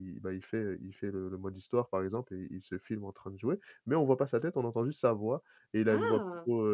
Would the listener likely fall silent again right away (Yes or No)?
Yes